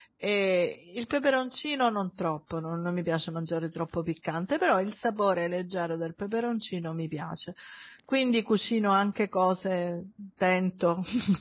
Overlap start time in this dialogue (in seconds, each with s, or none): none